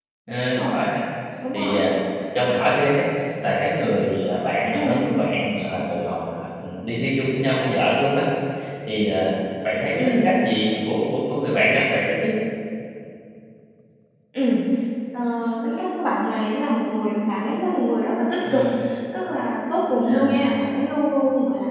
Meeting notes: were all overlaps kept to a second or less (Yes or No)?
Yes